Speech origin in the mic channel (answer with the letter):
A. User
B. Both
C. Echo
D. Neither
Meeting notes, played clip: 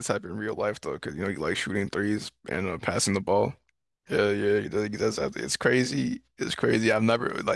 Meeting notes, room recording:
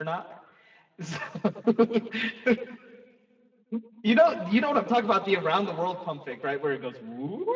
A